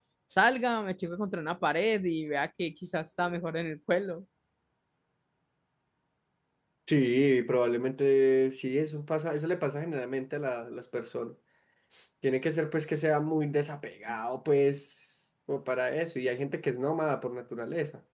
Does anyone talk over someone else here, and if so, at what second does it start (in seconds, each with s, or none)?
none